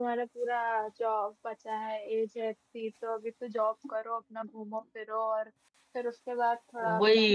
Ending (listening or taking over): taking over